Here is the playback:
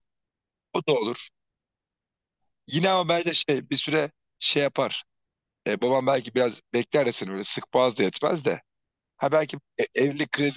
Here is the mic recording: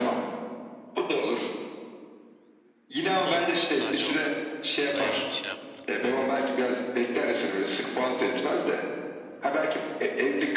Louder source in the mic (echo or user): echo